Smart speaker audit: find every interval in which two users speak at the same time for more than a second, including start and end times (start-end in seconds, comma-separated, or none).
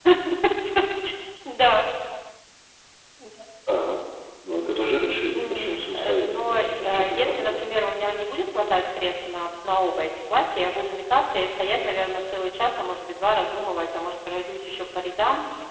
5.3-7.6